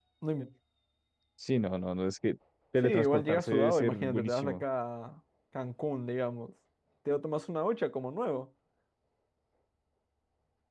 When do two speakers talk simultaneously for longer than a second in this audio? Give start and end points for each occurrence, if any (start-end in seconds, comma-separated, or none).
2.8-4.6